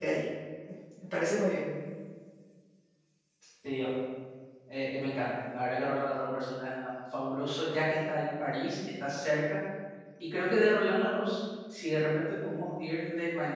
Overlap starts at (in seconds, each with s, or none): none